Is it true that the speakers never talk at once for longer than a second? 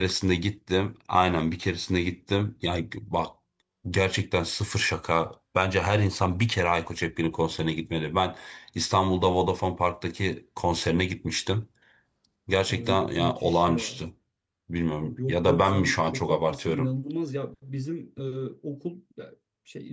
No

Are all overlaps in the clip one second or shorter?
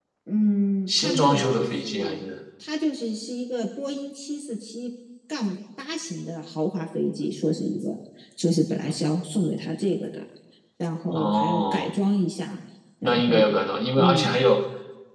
No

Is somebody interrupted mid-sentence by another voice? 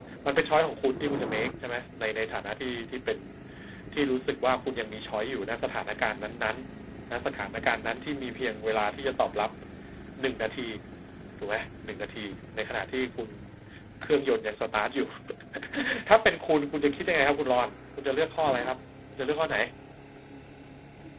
No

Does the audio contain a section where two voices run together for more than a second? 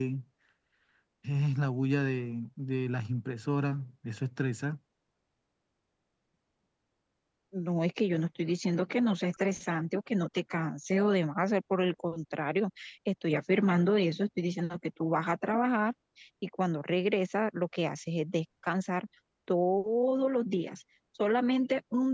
No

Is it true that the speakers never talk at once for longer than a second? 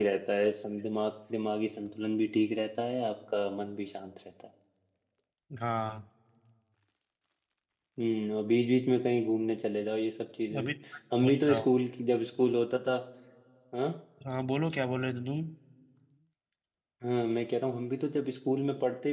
Yes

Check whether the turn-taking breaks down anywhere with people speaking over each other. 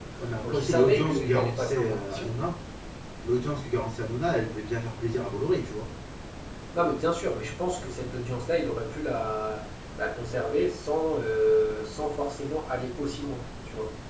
Yes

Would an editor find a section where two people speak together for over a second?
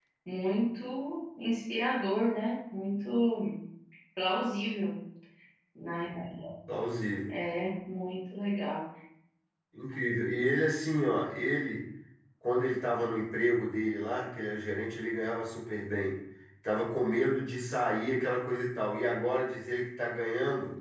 No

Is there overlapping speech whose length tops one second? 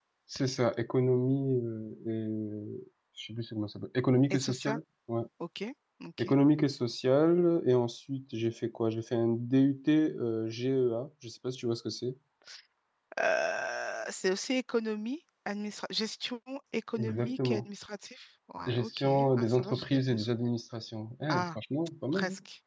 Yes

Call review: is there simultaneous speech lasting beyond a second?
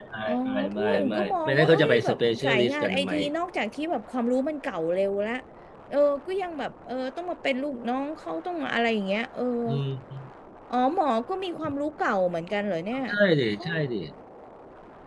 Yes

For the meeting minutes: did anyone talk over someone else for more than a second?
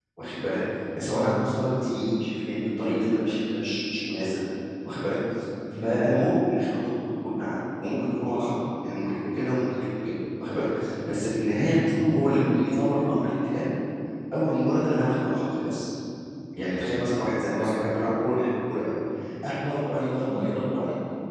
No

